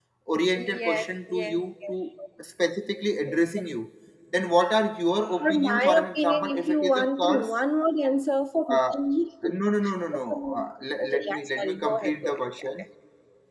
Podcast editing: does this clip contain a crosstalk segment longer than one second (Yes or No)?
Yes